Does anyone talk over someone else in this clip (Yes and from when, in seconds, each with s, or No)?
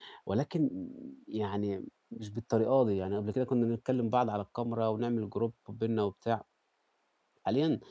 No